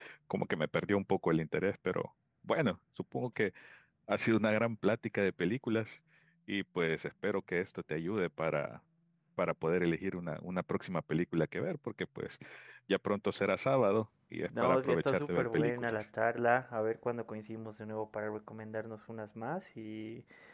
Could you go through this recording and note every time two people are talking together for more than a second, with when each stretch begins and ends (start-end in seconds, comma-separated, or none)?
14.5-16.0